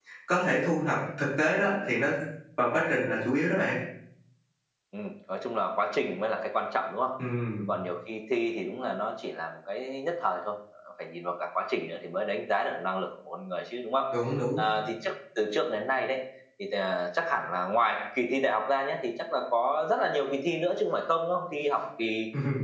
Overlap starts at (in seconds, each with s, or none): none